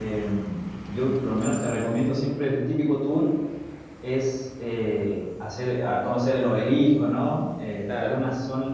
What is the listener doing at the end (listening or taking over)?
listening